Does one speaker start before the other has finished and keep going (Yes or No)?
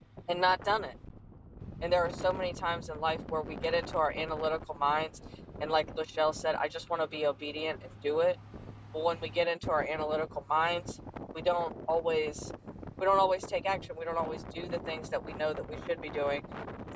No